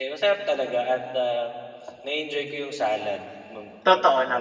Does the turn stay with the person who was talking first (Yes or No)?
No